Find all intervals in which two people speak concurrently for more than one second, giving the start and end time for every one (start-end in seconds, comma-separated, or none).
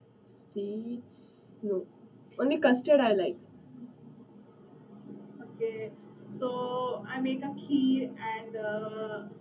none